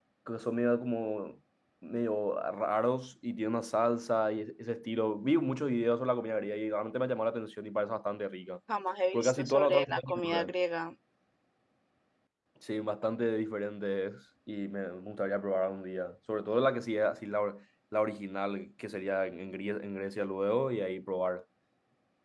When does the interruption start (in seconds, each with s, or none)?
9.1 s